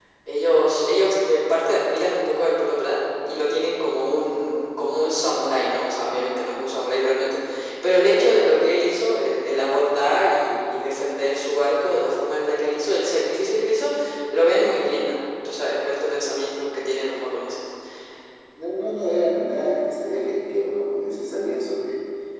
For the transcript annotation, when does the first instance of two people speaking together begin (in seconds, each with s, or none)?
none